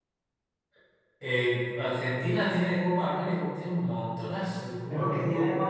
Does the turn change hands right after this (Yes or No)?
Yes